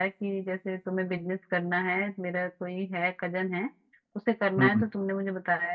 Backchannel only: Yes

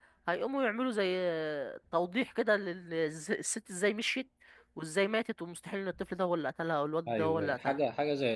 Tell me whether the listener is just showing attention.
No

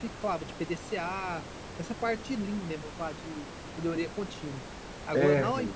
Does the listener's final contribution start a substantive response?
No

